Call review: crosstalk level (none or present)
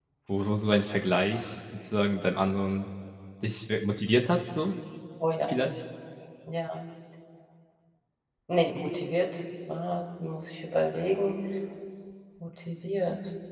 none